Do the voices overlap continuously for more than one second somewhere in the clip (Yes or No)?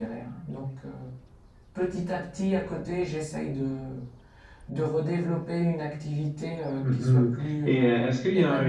Yes